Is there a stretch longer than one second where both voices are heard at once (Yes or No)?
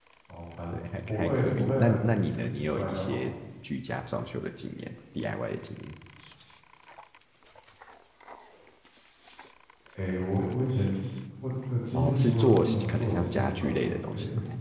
Yes